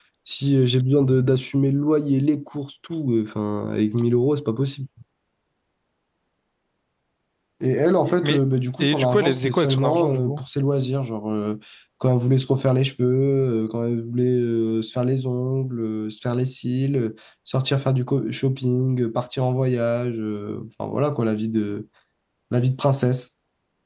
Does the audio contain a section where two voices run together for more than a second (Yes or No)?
Yes